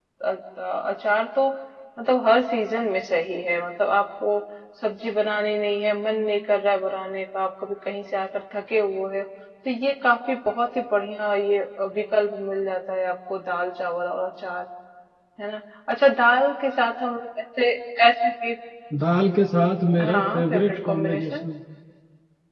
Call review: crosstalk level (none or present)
present